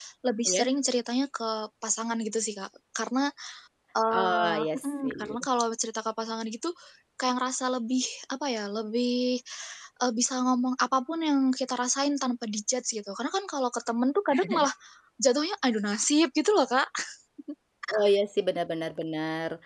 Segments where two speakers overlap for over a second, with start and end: 4.1-5.5

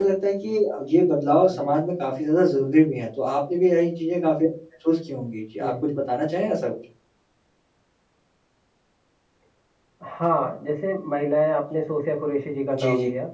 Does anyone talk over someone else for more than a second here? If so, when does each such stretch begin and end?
none

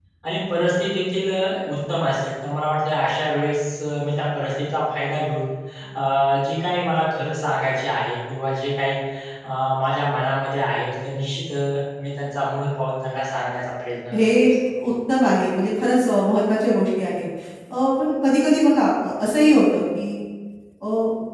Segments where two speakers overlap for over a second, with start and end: none

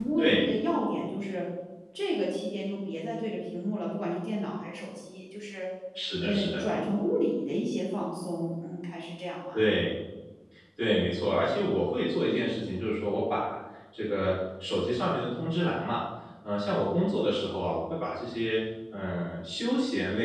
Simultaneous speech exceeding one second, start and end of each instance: none

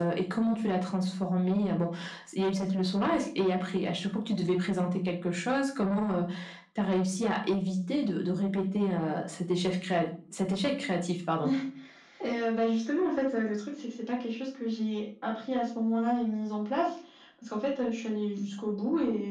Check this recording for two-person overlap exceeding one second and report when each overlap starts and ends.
none

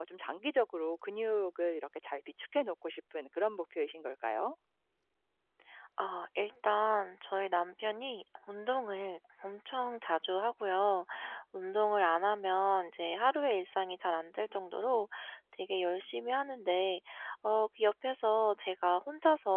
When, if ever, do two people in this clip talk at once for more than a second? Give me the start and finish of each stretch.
none

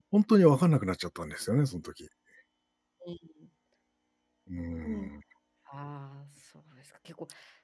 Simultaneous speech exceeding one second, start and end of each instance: none

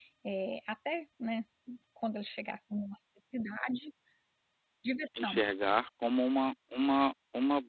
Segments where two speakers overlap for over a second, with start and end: none

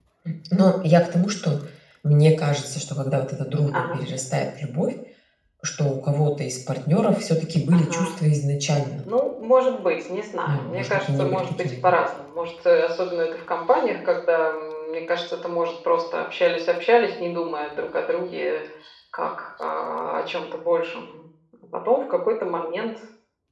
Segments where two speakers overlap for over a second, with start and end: 10.4-12.0

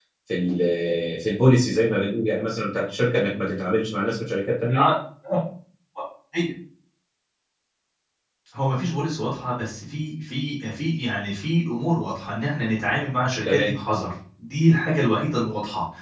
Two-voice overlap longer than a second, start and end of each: none

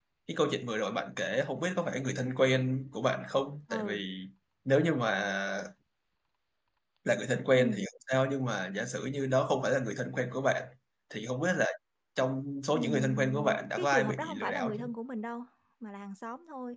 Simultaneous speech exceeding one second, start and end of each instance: 12.7-14.8

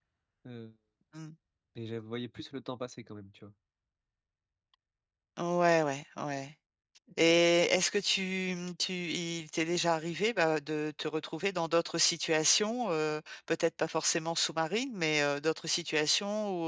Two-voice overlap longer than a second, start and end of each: none

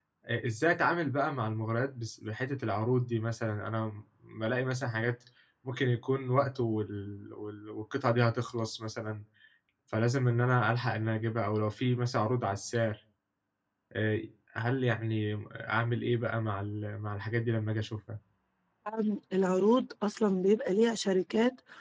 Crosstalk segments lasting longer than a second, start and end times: none

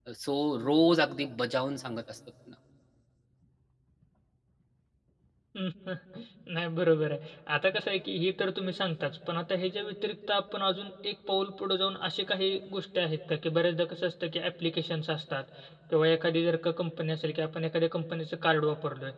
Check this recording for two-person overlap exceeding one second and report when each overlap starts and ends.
none

